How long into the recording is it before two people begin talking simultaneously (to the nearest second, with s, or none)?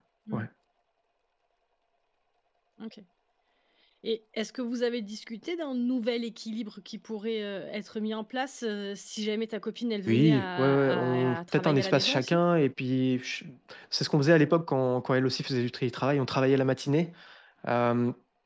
10 s